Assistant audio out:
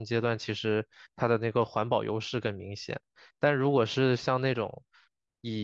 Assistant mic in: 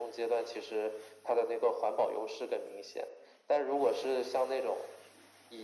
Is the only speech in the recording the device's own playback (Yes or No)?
Yes